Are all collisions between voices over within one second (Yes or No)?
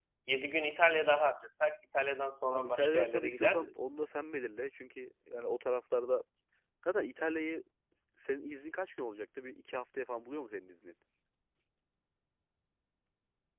No